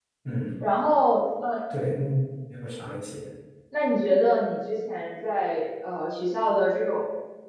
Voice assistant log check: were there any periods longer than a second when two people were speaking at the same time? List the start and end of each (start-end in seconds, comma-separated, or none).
none